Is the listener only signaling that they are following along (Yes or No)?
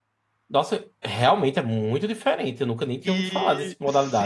No